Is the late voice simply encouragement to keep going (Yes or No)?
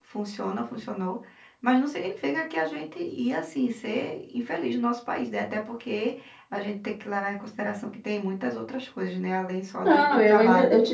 No